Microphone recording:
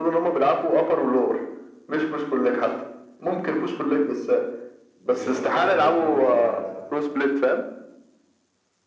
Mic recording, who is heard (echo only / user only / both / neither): both